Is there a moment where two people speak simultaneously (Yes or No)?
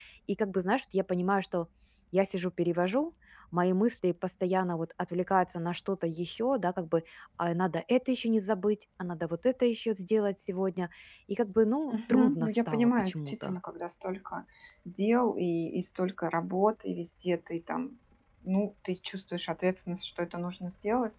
Yes